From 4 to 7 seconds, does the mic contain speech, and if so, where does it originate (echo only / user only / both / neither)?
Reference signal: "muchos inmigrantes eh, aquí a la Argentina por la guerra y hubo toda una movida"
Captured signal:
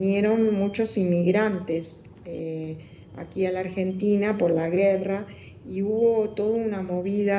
echo only